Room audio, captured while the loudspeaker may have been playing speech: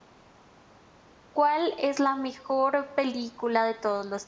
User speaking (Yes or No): Yes